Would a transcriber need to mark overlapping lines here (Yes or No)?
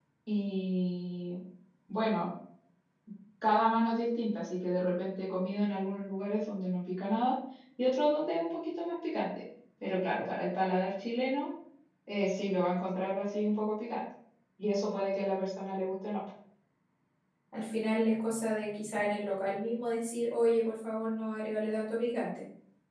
No